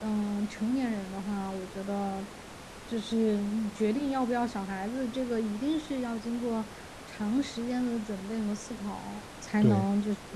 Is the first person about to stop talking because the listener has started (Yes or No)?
No